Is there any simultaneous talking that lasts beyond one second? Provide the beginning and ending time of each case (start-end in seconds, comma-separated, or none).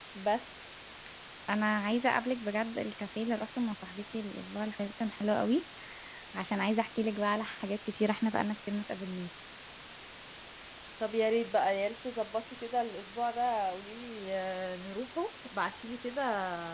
none